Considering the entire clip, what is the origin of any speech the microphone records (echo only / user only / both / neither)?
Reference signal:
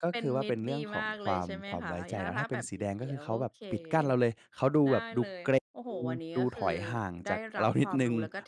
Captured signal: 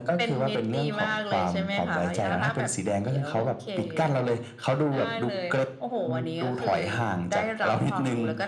echo only